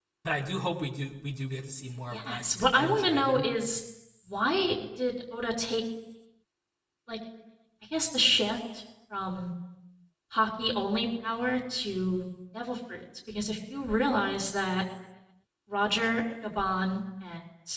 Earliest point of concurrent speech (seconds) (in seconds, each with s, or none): 2.1 s